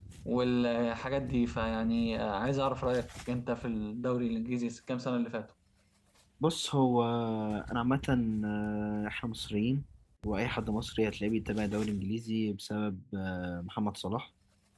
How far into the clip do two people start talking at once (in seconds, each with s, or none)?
none